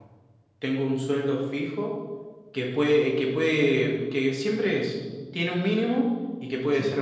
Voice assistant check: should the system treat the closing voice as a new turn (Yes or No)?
No